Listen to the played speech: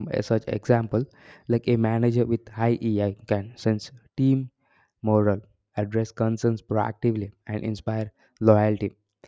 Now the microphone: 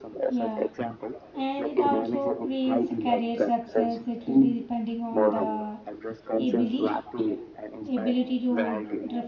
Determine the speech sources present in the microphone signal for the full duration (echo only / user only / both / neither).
both